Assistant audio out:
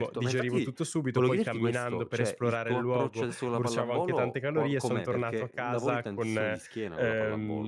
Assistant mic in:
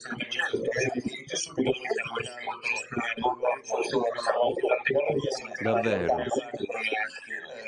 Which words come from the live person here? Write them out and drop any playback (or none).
Davvero?